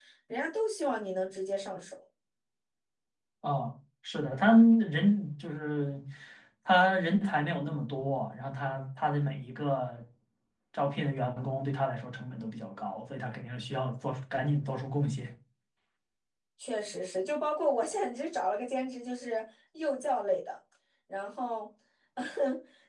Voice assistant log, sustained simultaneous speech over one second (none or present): none